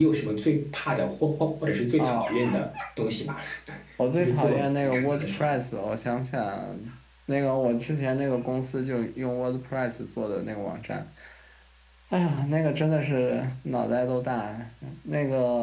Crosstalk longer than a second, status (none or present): present